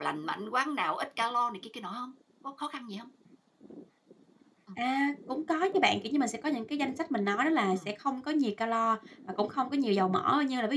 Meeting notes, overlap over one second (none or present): none